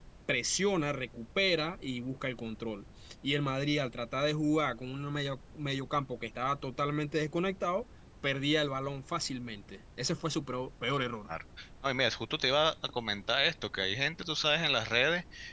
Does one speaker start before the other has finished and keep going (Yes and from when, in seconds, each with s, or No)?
No